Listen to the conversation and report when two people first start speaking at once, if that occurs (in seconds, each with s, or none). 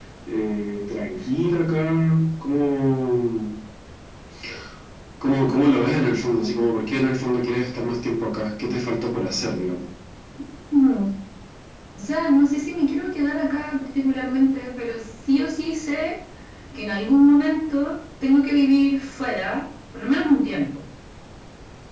none